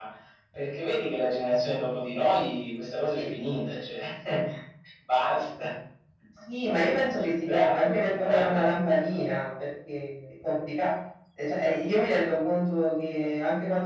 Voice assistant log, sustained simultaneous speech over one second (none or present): present